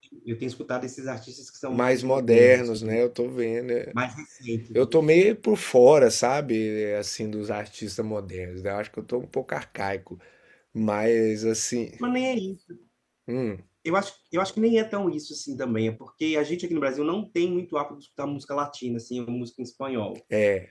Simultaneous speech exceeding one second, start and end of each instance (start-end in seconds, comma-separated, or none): 1.7-3.0